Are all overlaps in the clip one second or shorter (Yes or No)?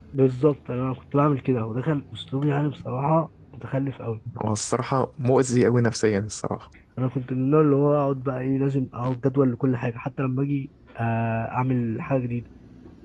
Yes